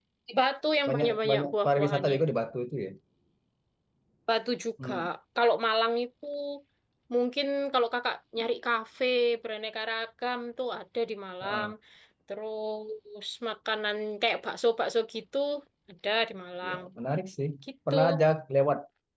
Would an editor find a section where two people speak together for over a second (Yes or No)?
Yes